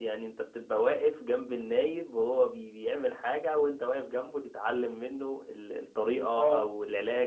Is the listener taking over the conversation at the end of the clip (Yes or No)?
No